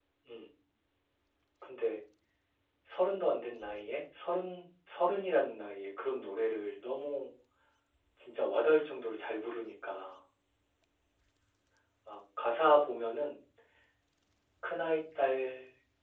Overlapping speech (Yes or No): No